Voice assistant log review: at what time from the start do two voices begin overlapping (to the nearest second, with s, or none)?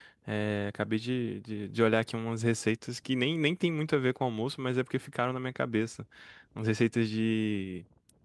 none